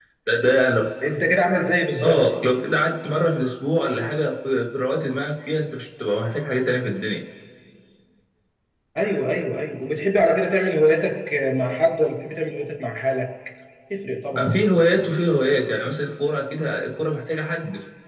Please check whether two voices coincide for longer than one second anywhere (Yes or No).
No